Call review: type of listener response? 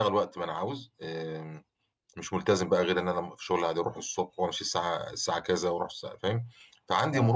listening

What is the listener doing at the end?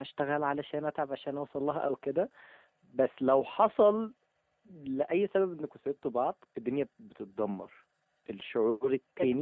taking over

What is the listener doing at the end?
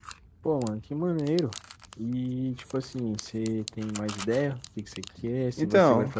listening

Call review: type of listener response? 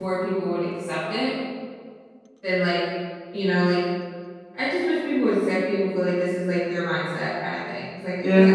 taking over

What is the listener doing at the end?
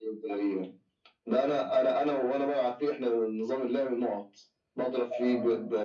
listening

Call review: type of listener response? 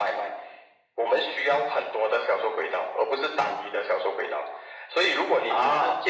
listening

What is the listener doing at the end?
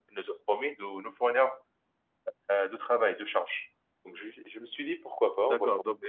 taking over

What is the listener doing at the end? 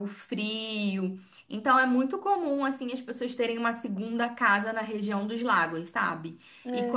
listening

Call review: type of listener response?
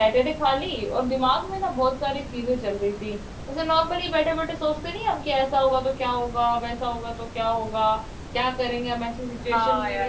taking over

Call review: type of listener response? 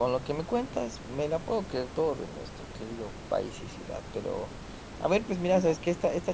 listening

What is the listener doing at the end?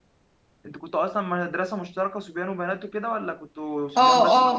taking over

